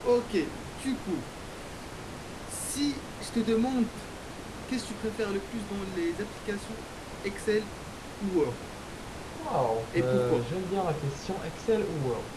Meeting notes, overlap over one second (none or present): none